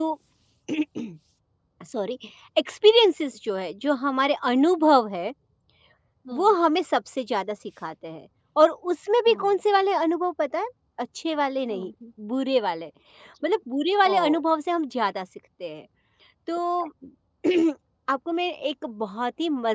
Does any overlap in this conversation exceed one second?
No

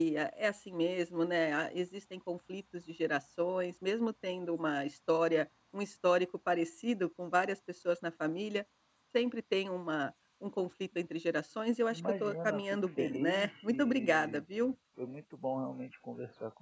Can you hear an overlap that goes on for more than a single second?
Yes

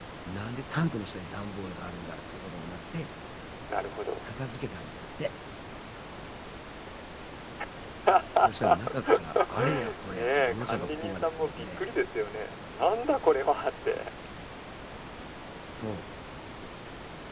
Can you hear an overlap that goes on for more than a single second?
Yes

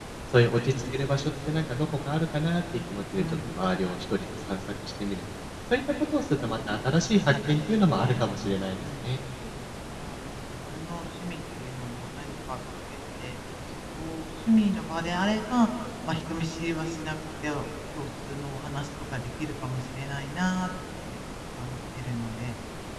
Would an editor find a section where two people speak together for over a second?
Yes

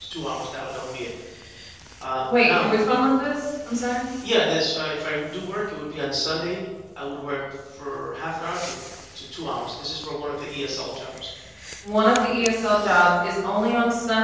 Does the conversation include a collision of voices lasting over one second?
No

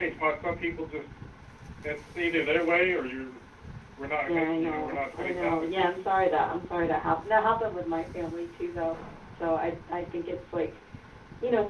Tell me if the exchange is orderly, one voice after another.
No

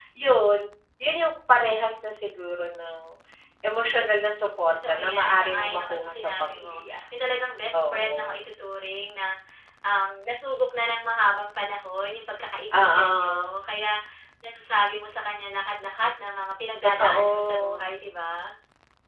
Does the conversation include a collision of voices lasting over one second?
Yes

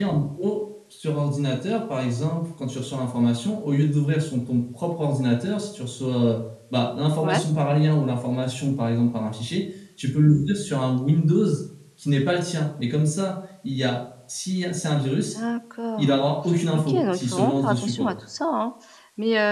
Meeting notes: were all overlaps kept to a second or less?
No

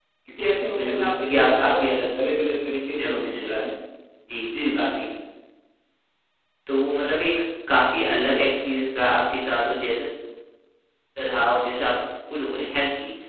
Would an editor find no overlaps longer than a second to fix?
No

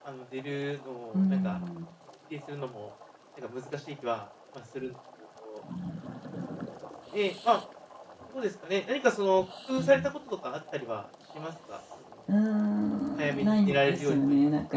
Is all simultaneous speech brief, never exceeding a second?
No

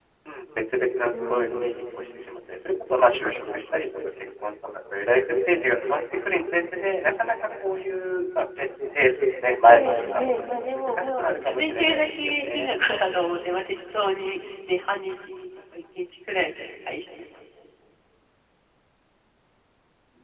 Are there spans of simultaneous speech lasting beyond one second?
Yes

